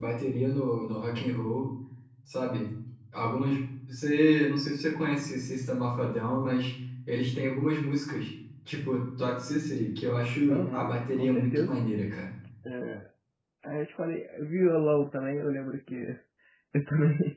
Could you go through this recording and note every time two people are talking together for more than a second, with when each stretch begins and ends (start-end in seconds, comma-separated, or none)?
10.5-11.8